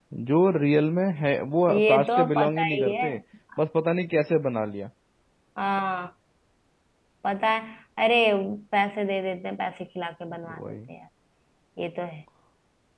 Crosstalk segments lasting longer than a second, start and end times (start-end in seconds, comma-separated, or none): 1.7-3.0